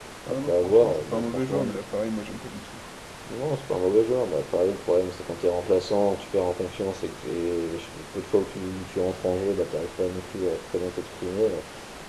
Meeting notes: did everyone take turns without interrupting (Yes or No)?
No